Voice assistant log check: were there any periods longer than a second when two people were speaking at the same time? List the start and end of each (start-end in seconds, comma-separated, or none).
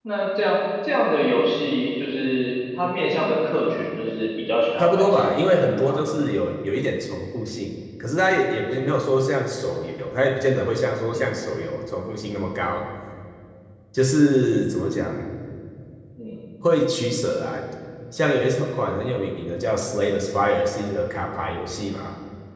4.8-6.0